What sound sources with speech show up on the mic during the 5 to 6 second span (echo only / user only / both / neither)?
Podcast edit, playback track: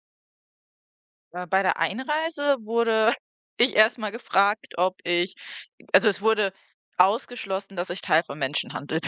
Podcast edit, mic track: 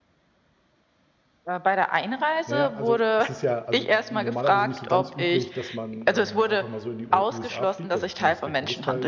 both